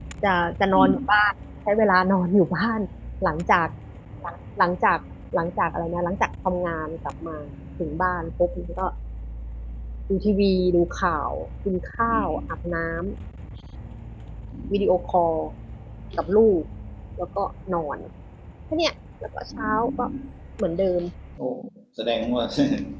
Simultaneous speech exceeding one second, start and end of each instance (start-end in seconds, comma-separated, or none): none